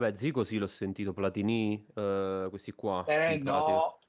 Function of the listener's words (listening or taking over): taking over